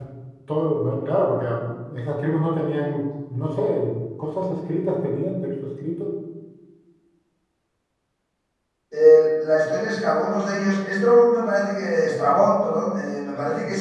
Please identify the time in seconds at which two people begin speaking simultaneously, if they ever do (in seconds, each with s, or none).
none